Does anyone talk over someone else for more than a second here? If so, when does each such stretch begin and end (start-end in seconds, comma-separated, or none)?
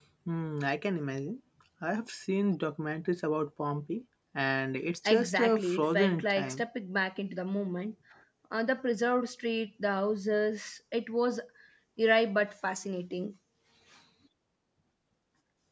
5.0-6.6